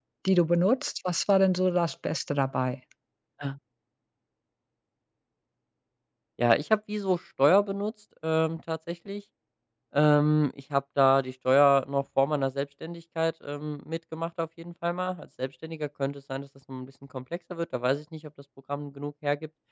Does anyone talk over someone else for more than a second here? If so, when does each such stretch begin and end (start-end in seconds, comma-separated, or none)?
none